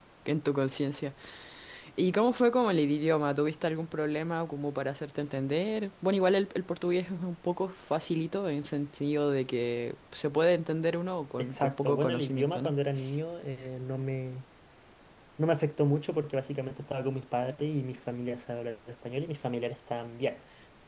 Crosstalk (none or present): present